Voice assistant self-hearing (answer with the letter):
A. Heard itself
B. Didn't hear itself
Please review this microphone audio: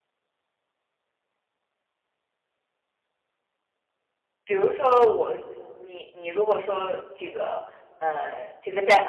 B